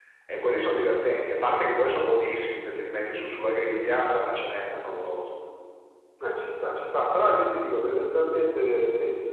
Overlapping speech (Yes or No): No